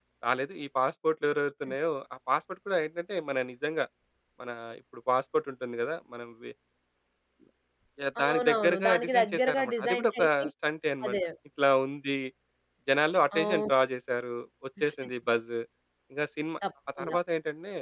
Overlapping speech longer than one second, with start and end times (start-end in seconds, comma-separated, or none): 8.2-10.4